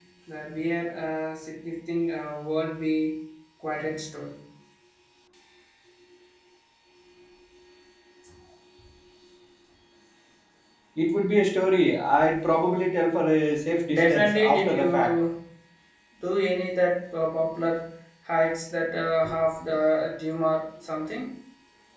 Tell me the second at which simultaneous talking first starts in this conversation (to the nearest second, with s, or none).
14 s